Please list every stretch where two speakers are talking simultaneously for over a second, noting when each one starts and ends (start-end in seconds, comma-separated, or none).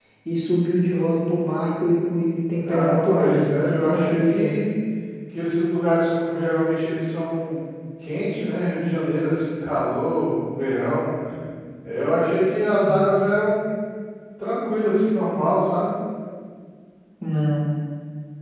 2.7-4.5